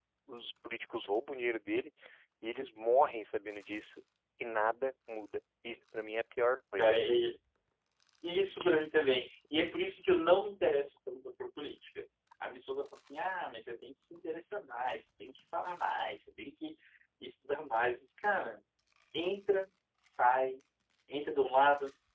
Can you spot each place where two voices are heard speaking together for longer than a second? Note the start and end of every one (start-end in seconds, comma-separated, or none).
none